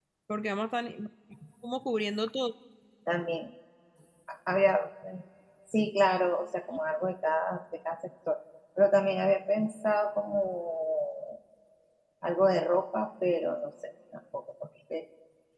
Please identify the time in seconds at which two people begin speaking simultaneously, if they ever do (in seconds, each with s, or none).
none